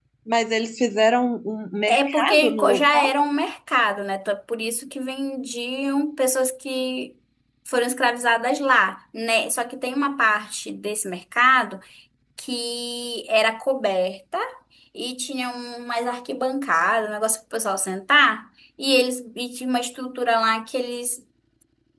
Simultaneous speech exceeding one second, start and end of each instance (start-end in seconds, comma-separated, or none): 1.9-3.1